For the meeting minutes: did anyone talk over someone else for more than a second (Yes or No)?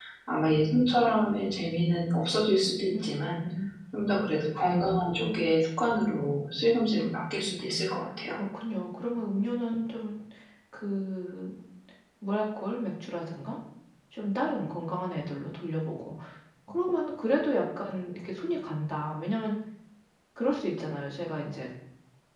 No